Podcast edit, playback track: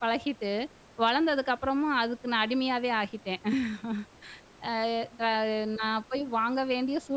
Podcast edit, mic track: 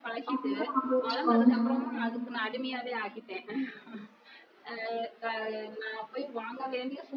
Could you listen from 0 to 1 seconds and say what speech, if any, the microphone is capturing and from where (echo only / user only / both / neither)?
both